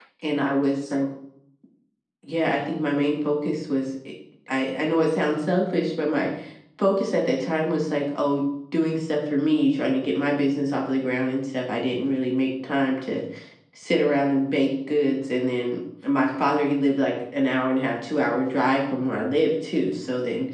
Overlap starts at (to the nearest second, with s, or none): none